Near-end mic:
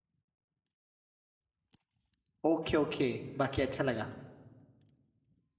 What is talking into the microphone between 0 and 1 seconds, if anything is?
neither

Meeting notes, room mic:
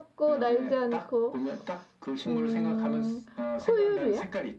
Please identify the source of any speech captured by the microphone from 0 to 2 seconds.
both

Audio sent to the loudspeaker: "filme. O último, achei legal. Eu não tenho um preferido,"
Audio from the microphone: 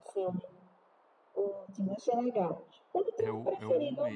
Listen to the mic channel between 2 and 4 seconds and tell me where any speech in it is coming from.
both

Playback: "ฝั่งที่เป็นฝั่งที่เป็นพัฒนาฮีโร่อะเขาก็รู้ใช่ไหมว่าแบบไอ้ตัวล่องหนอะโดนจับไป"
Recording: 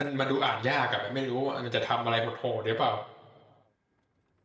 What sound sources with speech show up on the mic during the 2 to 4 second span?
user only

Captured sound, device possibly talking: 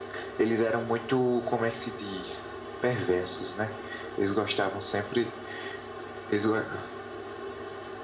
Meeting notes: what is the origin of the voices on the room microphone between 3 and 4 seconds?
echo only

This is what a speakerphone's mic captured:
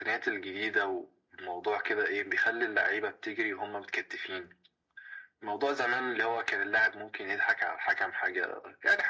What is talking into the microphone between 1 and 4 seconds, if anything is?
echo only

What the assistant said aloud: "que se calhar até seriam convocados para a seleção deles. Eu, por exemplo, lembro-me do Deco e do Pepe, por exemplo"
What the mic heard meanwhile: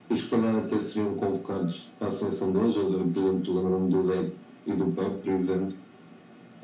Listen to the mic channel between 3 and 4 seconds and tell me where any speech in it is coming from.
echo only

